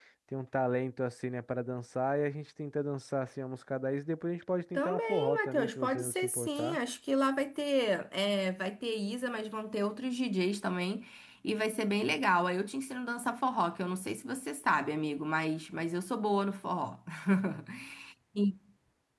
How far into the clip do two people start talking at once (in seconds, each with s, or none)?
4.7 s